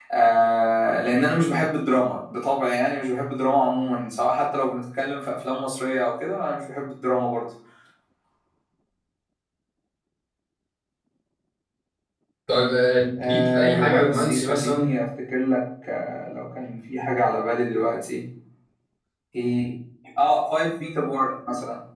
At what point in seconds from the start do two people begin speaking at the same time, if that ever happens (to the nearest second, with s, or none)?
13 s